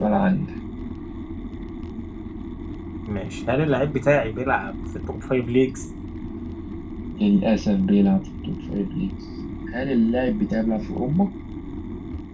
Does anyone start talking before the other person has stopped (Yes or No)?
No